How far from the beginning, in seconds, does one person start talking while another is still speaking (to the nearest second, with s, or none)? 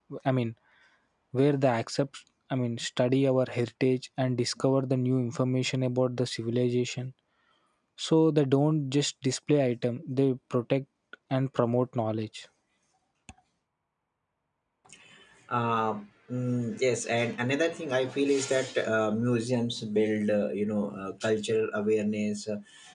none